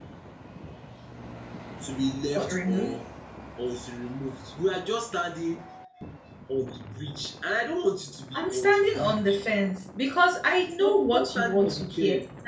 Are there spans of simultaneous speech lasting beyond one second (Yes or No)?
Yes